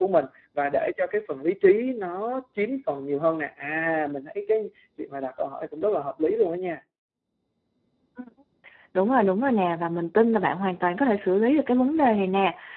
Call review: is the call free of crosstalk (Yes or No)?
Yes